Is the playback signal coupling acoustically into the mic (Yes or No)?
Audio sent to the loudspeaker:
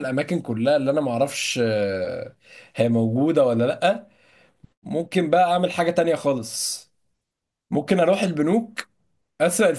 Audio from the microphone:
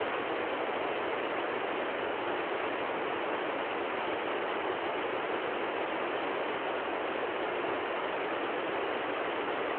No